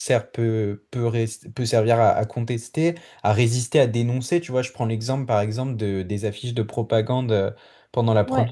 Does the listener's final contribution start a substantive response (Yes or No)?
No